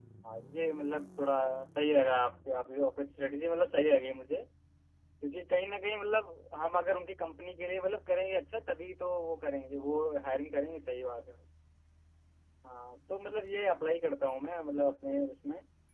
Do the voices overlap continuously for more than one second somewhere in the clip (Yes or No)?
No